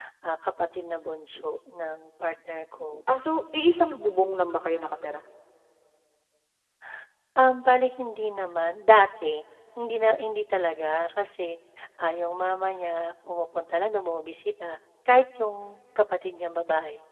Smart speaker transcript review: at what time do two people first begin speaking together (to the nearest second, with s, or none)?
none